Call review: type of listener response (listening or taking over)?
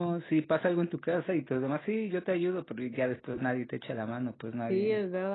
taking over